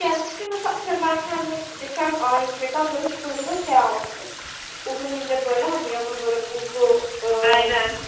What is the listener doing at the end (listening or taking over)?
listening